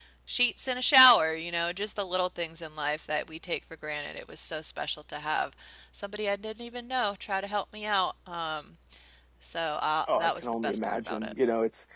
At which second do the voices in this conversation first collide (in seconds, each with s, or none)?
10.1 s